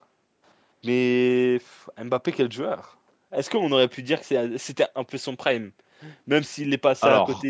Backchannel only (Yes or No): Yes